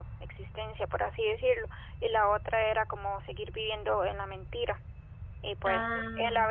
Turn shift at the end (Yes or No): No